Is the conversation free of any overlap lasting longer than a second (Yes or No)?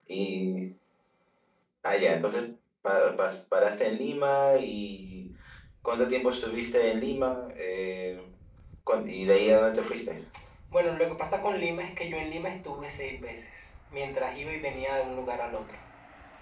Yes